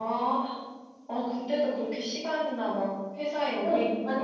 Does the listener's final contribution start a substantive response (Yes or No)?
Yes